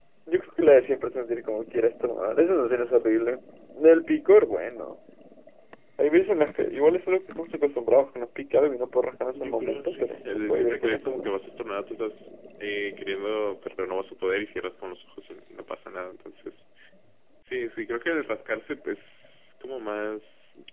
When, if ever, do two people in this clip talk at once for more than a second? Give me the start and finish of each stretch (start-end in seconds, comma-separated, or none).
9.3-11.3